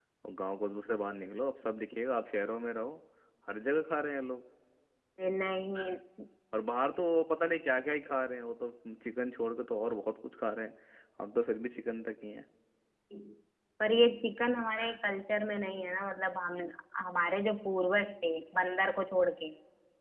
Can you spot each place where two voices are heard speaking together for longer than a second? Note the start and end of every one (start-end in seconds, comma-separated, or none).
none